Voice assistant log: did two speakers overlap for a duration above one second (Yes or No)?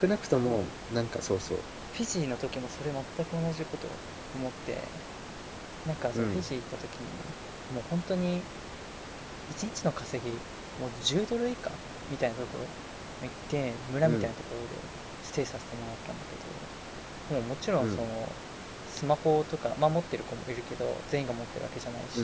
No